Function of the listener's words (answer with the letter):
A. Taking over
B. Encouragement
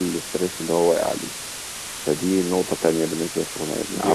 A